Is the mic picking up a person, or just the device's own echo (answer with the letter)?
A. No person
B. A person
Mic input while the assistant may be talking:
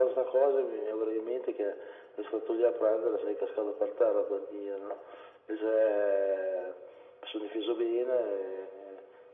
A